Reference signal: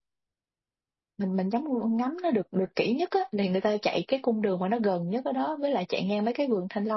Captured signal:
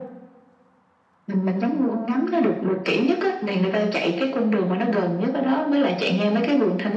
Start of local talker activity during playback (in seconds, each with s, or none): none